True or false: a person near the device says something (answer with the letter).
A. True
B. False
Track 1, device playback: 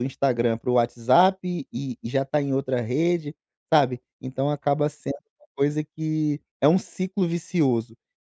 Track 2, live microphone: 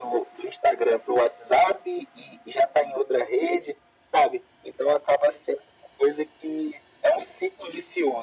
B